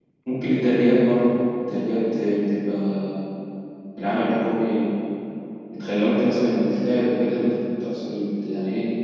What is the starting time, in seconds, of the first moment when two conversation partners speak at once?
none

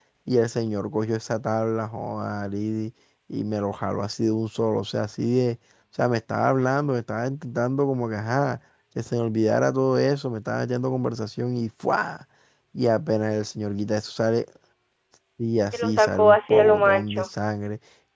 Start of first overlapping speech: 15.7 s

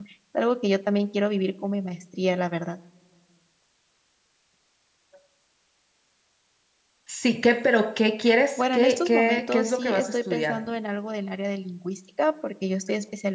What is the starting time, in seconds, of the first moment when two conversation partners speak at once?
8.6 s

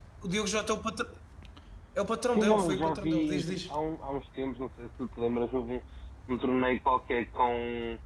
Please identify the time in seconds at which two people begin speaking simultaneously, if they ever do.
2.3 s

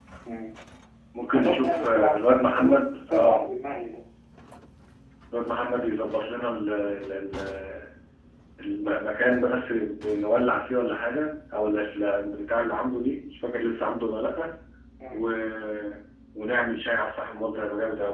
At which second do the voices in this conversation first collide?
1.3 s

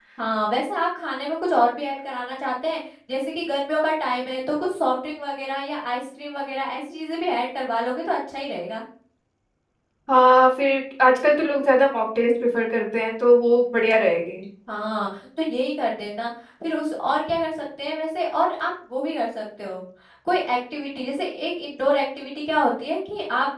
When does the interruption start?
none

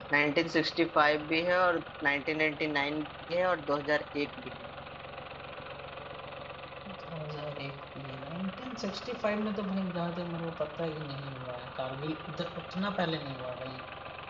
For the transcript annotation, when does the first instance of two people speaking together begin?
none

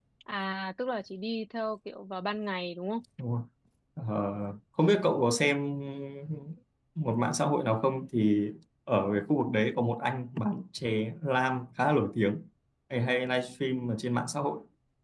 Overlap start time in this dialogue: none

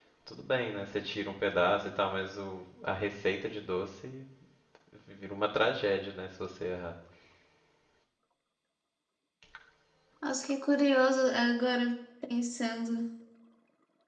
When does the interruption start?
none

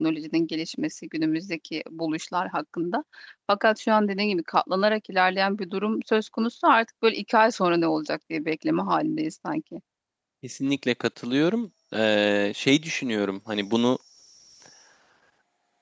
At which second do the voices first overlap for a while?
none

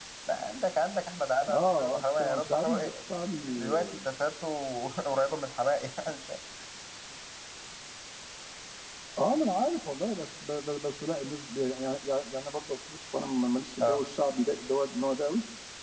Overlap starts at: 1.5 s

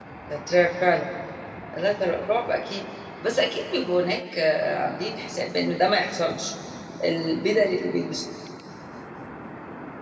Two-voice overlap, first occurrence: none

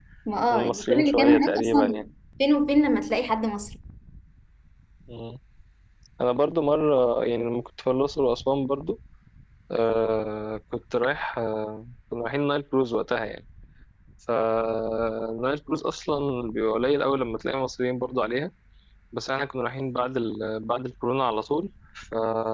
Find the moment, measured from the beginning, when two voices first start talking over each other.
0.5 s

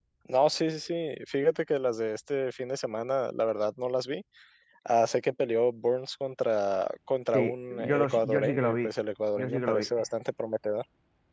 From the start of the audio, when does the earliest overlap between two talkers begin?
7.3 s

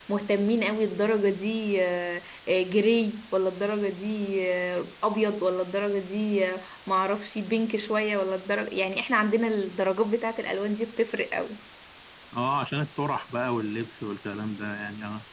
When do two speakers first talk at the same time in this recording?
none

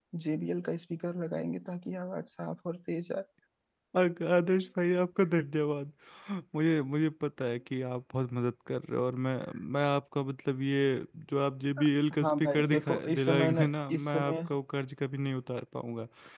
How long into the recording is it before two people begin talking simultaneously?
12.2 s

